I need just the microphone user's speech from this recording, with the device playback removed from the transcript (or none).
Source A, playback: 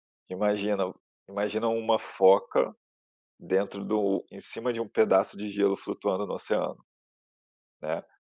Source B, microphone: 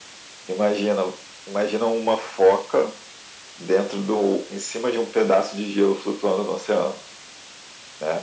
none